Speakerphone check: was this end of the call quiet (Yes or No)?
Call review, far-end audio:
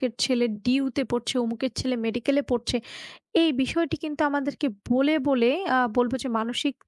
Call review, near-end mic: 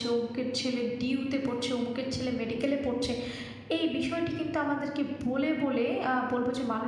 Yes